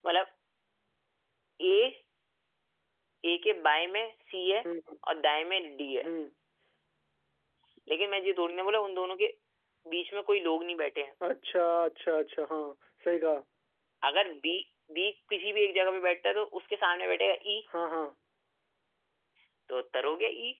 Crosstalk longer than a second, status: none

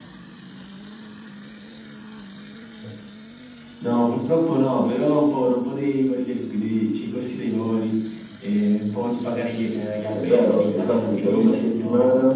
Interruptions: present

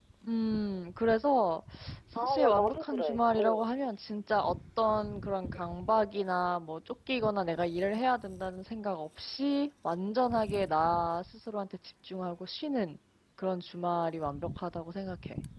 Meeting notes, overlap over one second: present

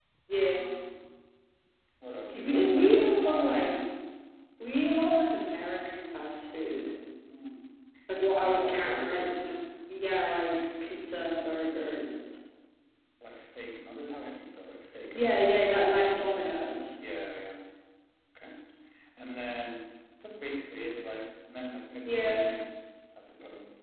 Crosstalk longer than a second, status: present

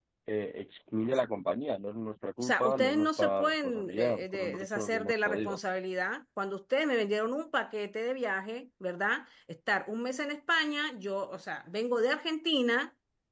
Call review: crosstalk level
present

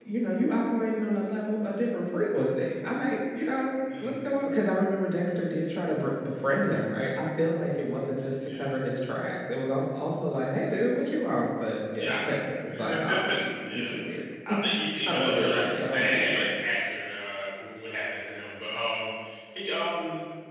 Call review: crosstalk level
present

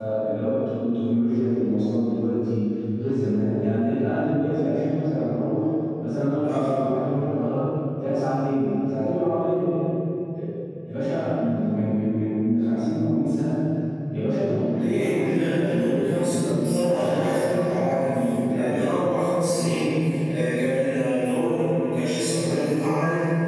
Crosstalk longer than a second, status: present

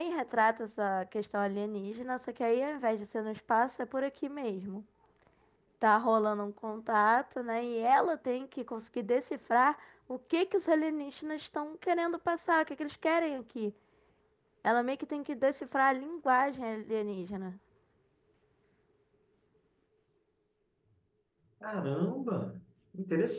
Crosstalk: none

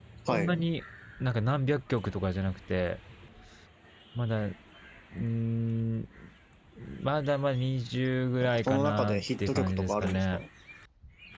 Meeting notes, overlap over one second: present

